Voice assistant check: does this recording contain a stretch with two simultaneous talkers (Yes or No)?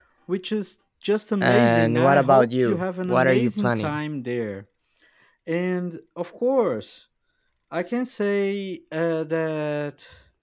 Yes